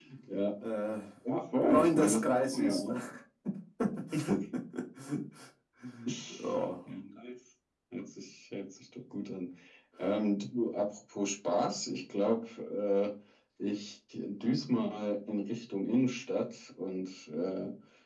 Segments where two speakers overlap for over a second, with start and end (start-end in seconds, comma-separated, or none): 1.7-2.9